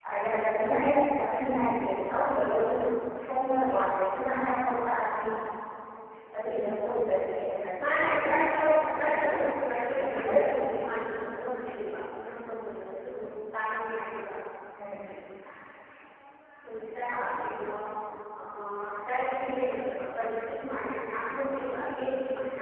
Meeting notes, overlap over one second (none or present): present